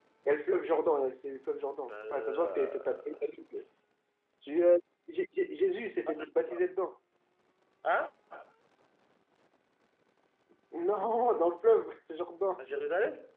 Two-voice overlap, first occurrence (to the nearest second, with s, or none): 2 s